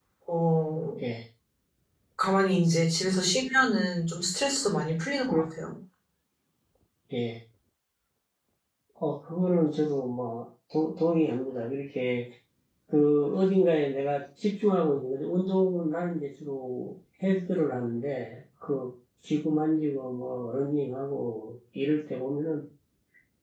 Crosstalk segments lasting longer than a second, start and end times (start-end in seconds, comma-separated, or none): none